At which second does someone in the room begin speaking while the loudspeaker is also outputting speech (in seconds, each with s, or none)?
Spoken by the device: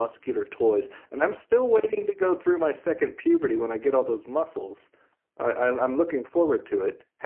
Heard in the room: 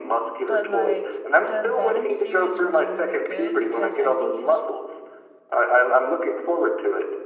0.5 s